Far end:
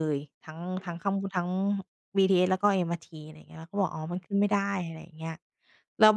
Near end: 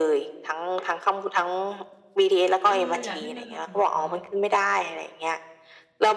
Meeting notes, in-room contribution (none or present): present